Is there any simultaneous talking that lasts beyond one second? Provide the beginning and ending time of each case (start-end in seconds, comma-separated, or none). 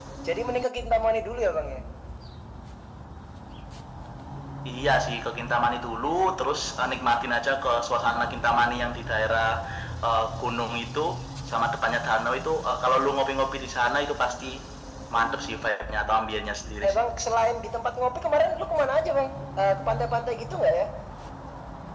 none